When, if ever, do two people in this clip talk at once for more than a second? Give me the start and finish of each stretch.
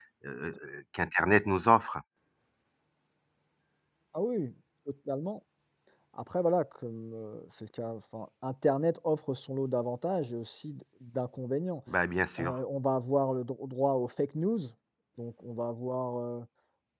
none

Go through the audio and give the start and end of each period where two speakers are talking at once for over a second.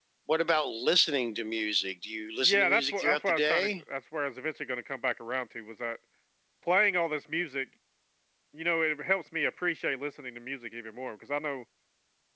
2.4-3.7

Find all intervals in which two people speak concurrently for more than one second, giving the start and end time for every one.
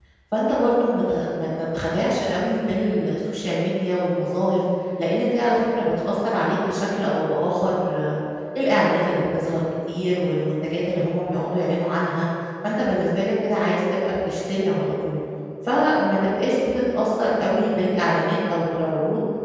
none

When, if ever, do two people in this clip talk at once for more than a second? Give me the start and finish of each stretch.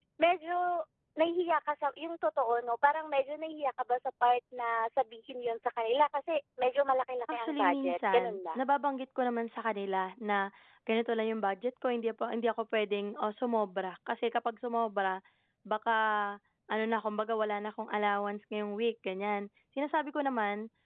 7.3-8.6

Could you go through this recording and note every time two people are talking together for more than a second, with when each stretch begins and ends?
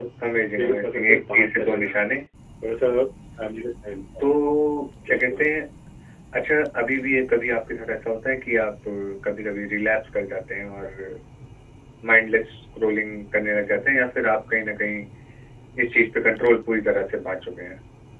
0.6-2.0

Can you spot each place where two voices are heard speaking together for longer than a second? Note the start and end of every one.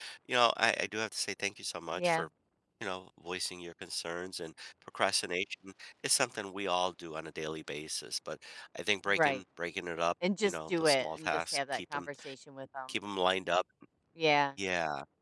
10.4-12.1

